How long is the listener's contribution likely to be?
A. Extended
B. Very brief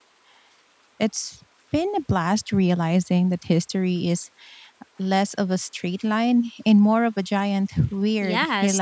A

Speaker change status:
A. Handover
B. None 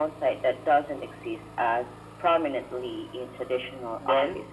A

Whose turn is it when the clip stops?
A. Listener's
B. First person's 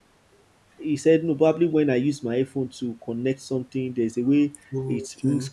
B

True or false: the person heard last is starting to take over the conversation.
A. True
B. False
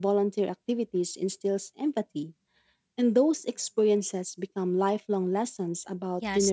A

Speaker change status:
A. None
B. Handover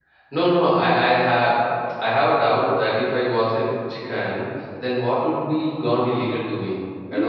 B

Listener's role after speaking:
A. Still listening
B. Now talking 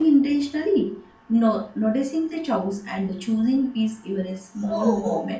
B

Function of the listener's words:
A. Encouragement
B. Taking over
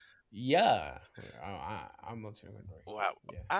B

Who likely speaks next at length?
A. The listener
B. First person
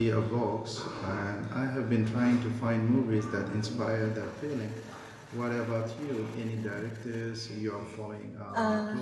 A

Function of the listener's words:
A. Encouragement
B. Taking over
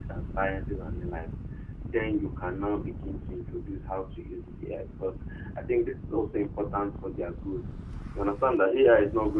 A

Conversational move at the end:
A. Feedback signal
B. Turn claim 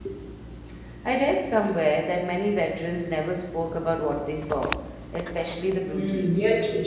B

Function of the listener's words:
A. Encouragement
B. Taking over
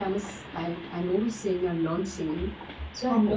A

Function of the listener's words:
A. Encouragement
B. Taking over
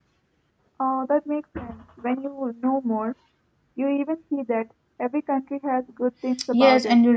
B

